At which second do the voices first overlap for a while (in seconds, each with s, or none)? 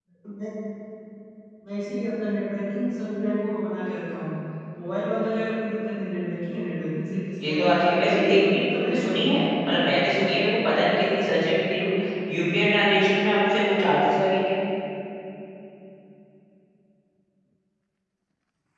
7.4 s